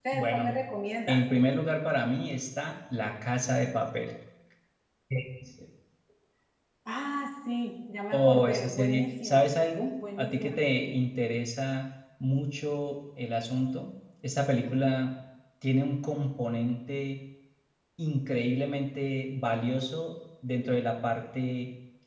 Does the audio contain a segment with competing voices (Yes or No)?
Yes